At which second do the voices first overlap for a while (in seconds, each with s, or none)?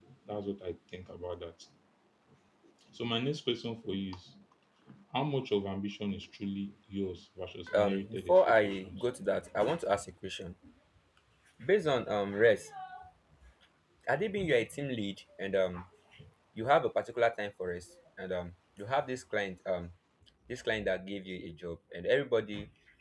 7.7 s